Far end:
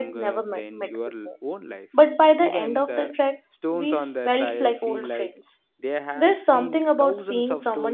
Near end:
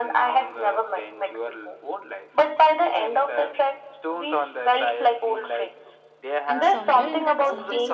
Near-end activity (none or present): present